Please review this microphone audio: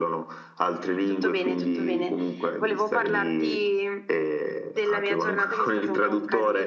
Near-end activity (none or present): none